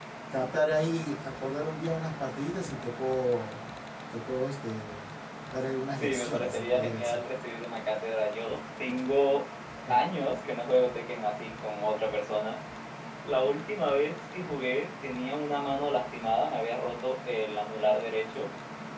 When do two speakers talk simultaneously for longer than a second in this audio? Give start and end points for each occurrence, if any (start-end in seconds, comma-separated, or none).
6.0-7.2